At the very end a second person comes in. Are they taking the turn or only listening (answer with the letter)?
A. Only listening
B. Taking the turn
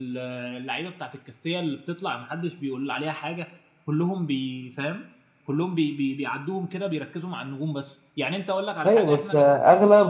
B